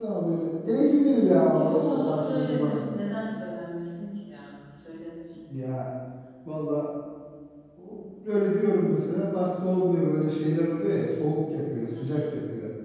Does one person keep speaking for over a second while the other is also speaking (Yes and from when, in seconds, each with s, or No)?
Yes, from 1.6 s